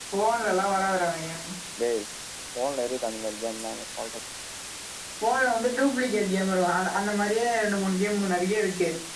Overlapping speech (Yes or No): No